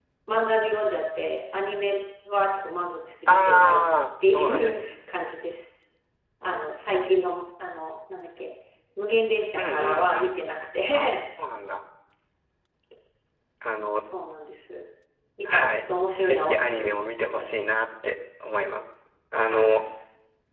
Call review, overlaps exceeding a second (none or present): present